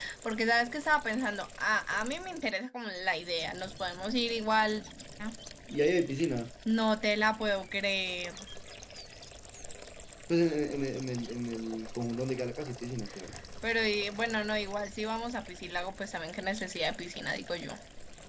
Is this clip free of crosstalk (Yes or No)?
Yes